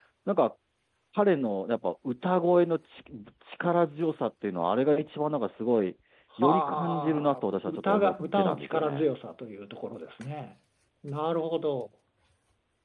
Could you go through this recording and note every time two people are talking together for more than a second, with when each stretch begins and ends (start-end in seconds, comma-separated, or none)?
6.4-9.1